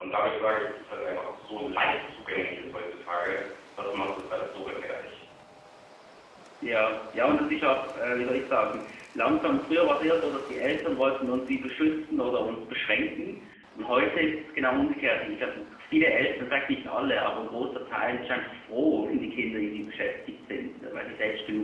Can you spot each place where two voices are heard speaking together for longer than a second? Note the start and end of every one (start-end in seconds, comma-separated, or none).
none